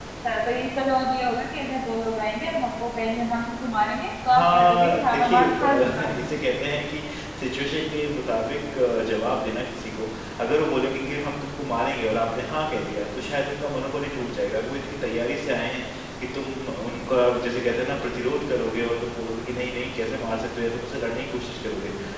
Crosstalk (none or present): present